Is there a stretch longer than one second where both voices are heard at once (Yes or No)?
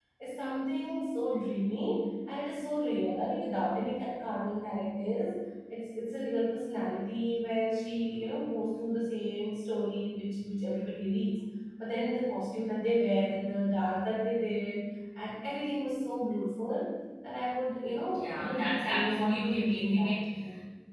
Yes